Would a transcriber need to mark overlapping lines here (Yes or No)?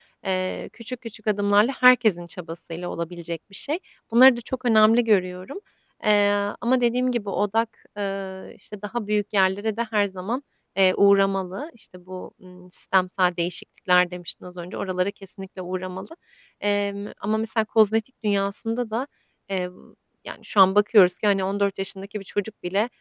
No